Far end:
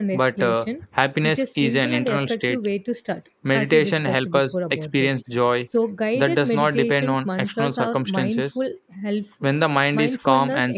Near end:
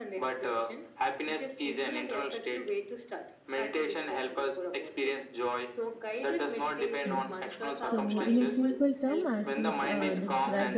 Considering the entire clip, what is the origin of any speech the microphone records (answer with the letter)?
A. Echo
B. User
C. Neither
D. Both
D